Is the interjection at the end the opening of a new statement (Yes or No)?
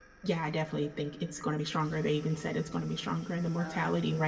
No